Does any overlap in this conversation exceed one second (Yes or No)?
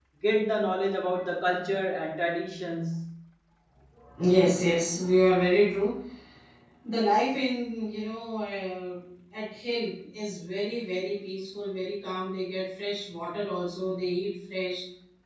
No